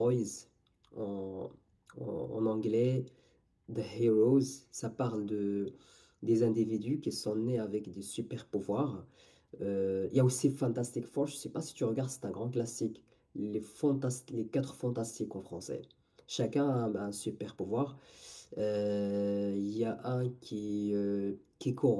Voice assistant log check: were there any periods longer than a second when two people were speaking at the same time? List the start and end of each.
none

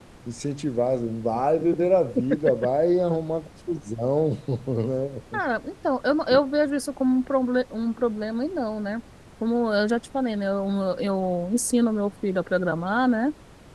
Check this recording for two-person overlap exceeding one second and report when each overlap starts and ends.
none

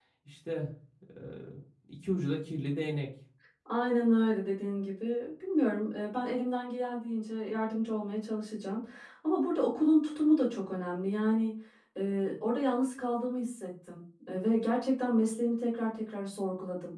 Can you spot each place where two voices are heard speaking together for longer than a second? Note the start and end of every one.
none

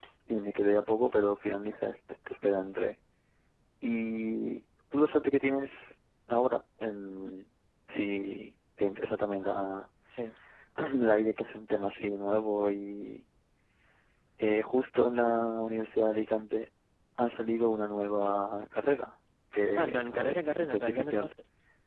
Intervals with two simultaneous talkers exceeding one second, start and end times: 19.8-21.3

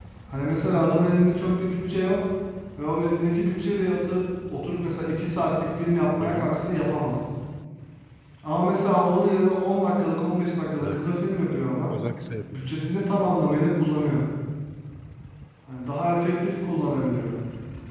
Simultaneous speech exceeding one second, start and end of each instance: none

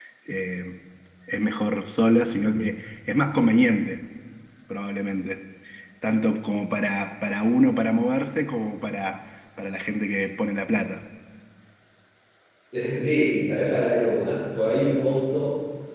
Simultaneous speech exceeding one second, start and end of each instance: none

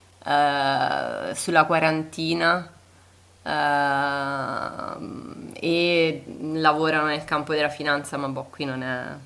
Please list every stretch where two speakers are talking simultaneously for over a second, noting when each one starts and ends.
none

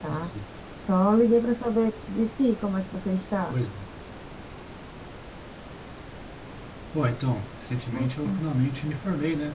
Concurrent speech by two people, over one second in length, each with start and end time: none

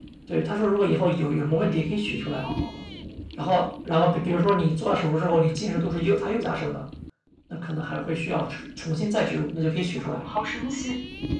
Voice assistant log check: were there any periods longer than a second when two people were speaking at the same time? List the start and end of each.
none

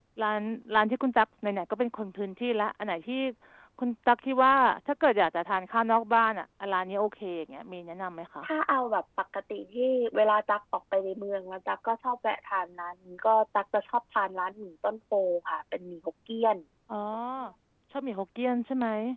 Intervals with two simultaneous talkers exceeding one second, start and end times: none

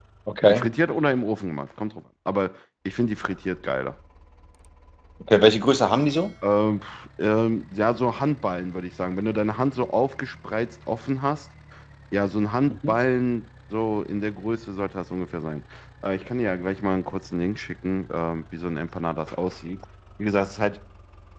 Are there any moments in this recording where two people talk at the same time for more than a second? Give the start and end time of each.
none

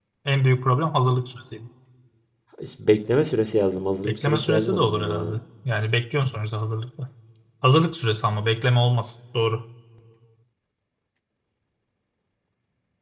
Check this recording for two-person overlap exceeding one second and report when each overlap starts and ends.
4.0-5.4

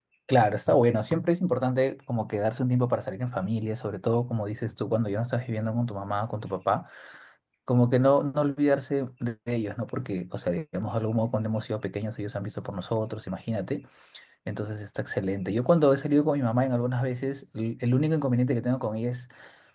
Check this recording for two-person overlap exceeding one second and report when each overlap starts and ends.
none

